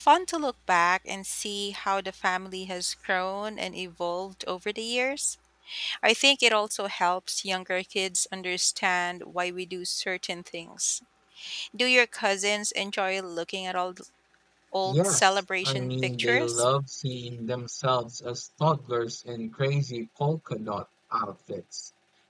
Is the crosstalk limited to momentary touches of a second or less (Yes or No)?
No